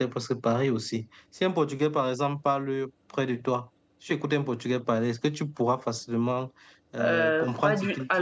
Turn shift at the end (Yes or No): Yes